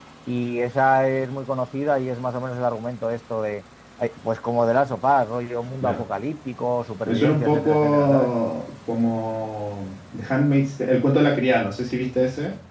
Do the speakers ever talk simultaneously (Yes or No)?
Yes